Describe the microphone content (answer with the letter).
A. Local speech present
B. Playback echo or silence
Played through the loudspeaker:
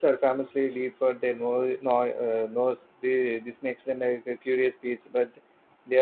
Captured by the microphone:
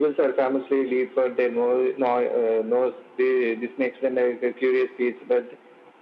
B